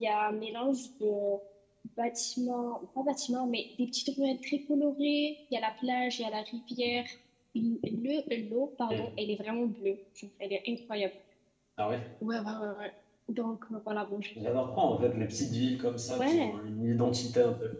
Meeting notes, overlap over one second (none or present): none